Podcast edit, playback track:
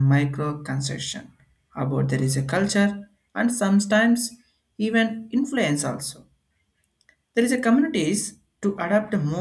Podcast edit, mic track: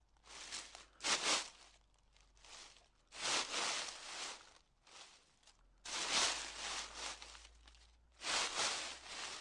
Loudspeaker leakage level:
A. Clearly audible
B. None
B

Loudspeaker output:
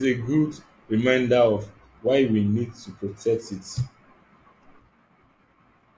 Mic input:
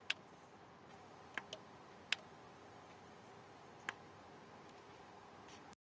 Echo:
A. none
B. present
A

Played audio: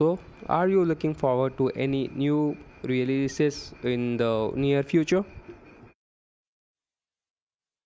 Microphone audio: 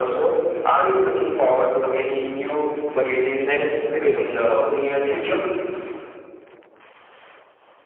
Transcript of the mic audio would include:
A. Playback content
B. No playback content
A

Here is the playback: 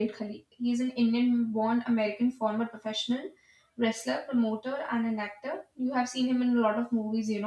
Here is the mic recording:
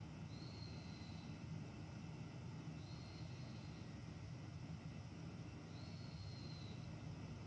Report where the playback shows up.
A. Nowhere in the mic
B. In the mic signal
A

